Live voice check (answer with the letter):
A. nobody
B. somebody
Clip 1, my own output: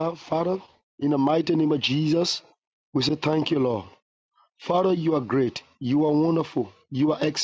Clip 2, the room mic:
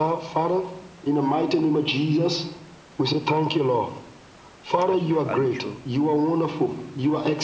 B